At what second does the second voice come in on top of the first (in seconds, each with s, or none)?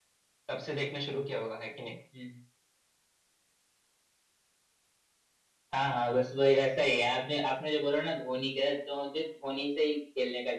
none